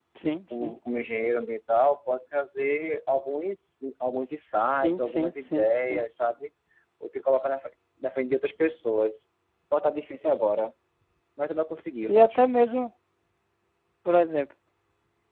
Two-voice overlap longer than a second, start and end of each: 4.8-6.0

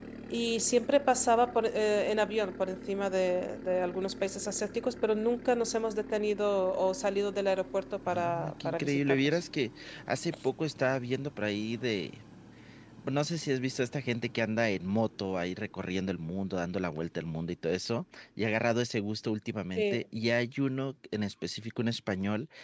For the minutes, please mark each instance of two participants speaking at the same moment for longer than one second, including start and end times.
8.1-9.4

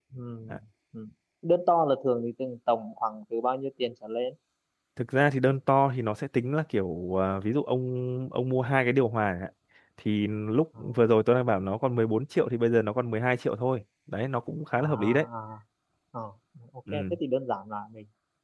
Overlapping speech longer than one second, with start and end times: none

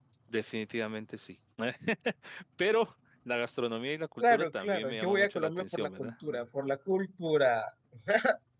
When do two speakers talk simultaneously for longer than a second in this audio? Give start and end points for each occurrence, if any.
4.2-6.1

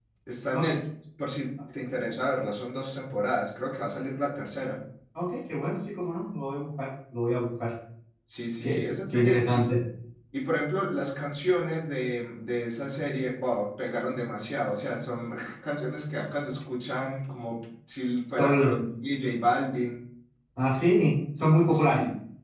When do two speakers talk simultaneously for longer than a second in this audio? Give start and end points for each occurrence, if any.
8.6-9.8

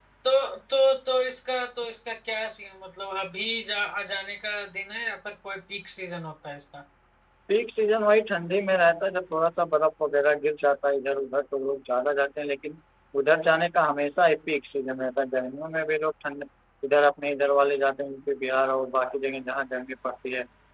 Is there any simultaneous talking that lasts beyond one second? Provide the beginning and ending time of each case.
none

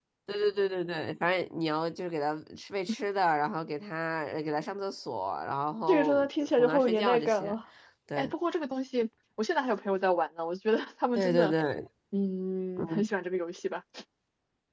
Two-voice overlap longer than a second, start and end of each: 5.9-7.5

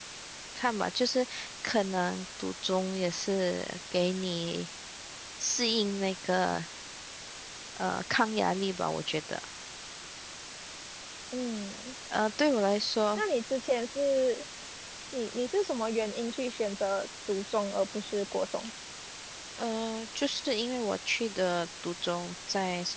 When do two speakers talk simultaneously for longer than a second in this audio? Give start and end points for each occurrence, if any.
none

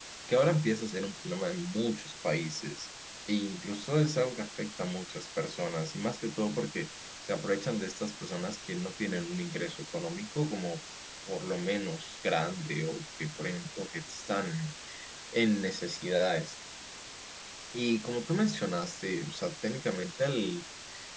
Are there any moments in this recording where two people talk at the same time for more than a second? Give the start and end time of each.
none

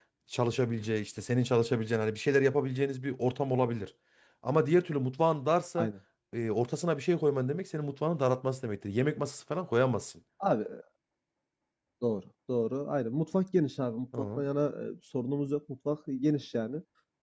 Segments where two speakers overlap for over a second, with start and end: none

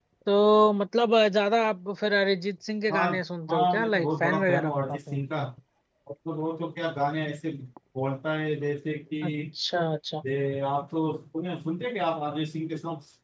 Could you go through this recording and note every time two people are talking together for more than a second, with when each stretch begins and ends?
3.5-5.2

